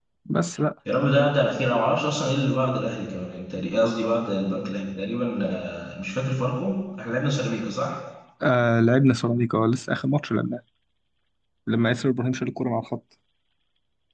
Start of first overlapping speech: none

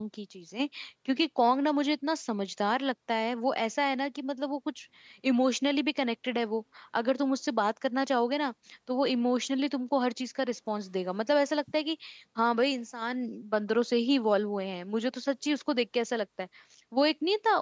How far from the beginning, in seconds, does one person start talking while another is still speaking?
none

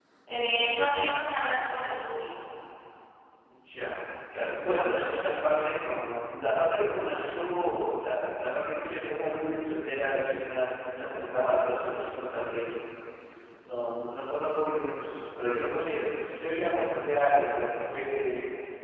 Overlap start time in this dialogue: none

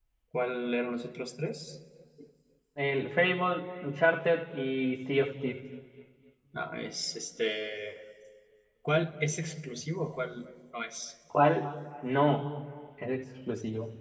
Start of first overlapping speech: none

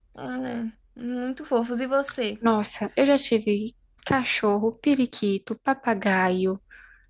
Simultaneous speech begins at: none

